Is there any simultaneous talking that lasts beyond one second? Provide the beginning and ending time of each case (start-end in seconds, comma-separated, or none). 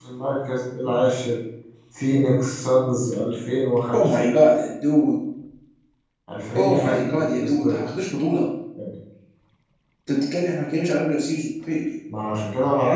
6.6-7.8